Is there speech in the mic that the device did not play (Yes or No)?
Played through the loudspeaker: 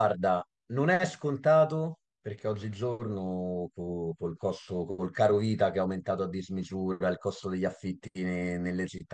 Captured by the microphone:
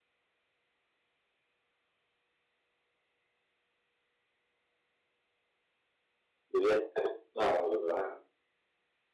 Yes